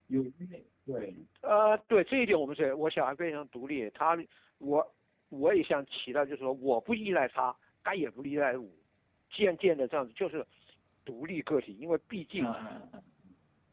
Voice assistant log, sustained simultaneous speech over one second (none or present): none